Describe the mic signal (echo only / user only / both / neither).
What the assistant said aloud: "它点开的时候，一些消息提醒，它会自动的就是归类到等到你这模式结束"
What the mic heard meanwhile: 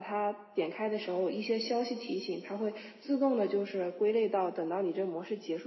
echo only